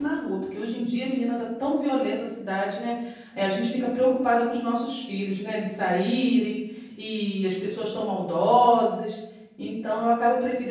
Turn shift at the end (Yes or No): No